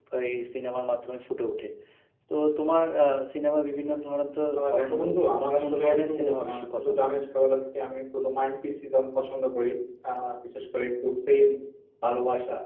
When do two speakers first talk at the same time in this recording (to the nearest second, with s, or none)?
5 s